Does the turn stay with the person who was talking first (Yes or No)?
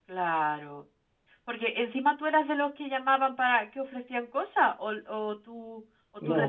No